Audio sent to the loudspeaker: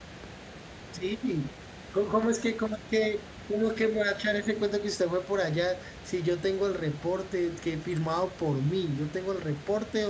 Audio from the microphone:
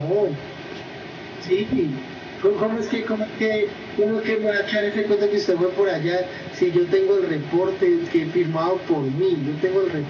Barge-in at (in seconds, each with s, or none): none